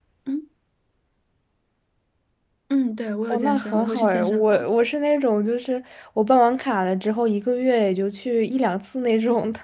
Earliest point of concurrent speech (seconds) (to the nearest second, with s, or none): 3 s